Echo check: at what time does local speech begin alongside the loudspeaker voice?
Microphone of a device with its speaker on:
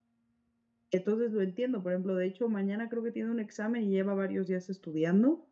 0.9 s

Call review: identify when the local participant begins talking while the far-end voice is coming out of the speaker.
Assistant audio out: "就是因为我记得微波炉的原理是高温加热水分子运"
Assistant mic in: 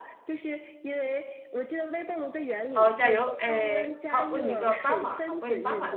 2.7 s

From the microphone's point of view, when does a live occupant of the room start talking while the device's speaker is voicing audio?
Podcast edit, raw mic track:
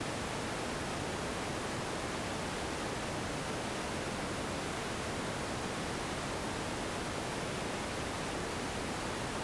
none

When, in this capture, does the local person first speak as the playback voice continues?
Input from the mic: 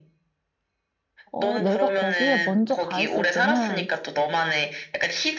1.3 s

